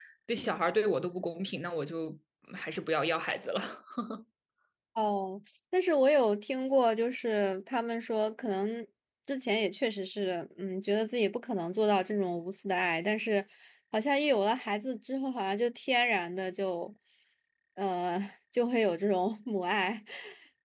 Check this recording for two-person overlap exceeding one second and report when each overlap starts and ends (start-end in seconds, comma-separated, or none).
none